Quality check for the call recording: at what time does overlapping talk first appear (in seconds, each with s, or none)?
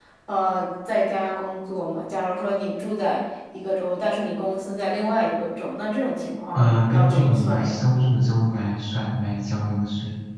6.6 s